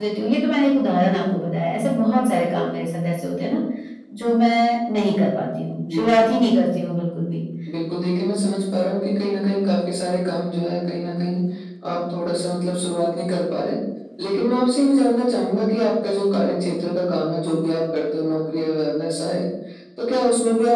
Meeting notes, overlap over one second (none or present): none